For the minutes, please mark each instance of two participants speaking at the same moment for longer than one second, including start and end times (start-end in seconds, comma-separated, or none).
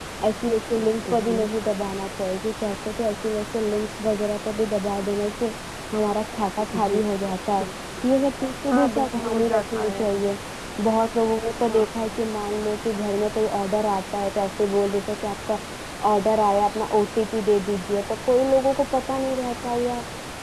8.7-10.0